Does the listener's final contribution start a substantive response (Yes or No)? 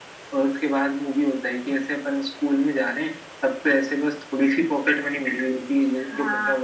No